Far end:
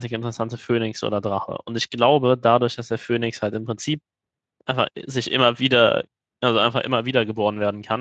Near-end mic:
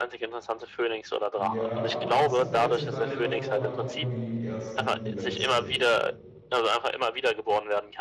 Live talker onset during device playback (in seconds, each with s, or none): 1.4 s